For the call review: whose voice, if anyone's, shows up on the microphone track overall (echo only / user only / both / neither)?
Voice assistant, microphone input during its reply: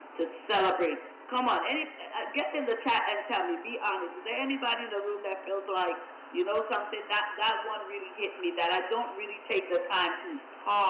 echo only